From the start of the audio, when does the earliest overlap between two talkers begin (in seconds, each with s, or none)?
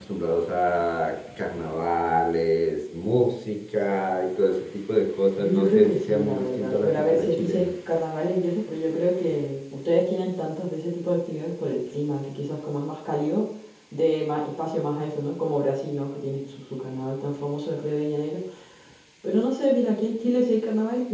5.4 s